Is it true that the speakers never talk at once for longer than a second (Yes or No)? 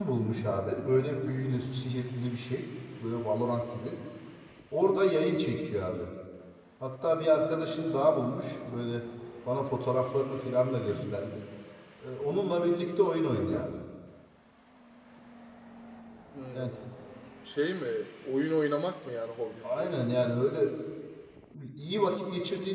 Yes